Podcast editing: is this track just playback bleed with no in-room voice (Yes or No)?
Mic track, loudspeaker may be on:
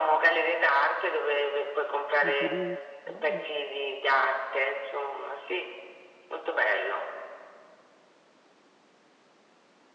No